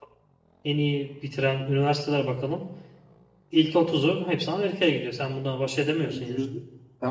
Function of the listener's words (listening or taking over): taking over